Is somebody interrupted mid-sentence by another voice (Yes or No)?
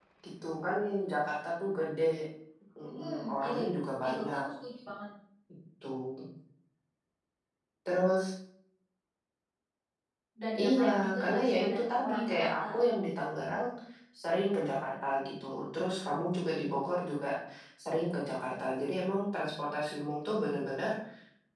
Yes